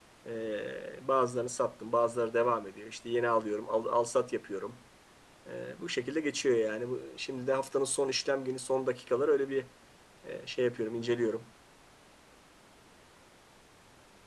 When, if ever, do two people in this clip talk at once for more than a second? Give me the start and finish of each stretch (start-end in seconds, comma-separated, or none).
none